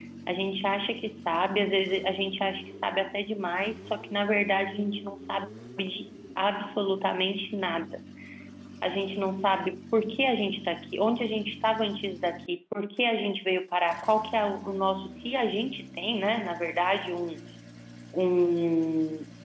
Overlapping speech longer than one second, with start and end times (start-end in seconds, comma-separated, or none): none